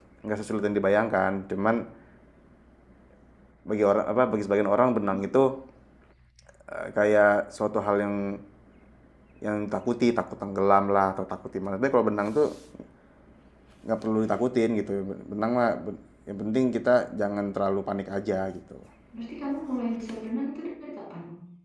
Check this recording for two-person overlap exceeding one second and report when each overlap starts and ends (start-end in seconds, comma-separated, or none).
none